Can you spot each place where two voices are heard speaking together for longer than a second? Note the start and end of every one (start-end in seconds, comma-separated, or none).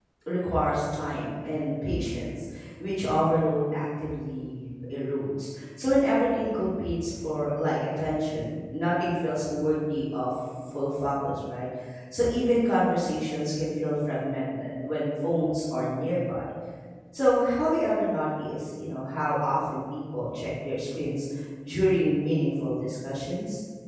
none